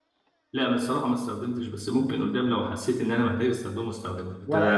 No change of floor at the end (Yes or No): No